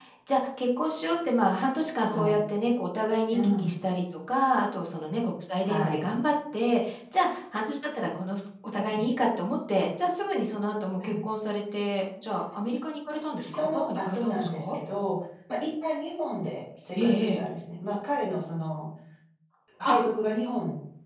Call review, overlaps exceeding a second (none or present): present